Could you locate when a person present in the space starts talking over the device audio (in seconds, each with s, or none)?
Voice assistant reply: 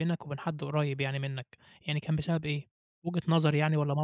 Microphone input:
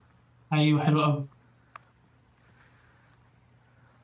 0.5 s